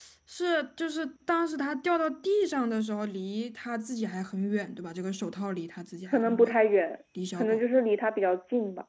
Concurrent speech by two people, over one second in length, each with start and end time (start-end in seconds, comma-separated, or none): none